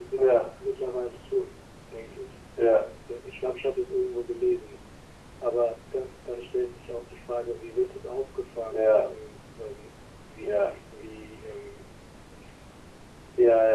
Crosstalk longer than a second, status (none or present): none